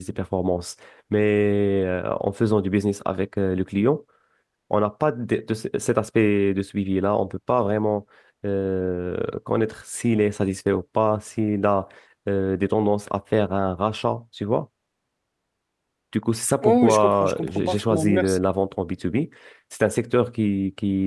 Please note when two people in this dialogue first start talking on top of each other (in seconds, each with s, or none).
16.6 s